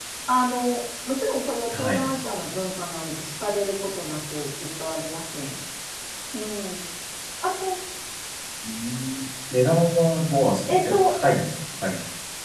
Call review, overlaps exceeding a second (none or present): none